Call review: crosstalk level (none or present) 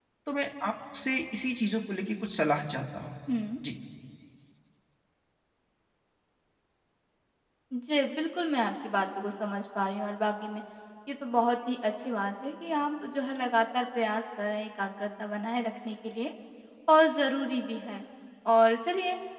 none